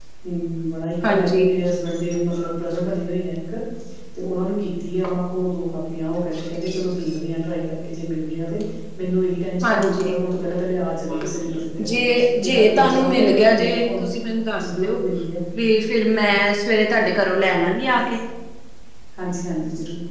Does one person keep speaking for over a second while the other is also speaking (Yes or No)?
Yes